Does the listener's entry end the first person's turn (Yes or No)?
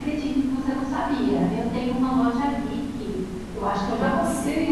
No